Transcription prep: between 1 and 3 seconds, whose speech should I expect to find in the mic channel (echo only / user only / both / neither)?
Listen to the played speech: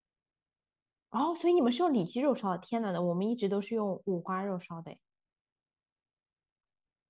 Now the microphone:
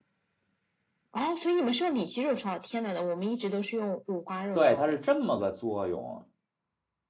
echo only